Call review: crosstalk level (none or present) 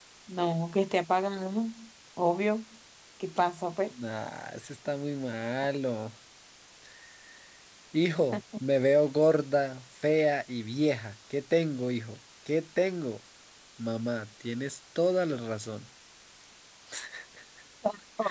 none